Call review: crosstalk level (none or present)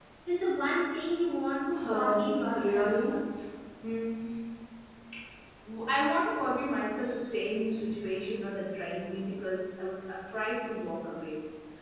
present